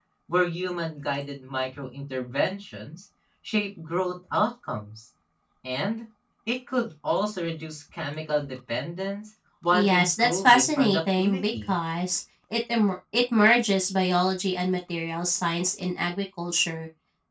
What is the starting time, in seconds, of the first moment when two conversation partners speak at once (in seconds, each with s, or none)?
9.7 s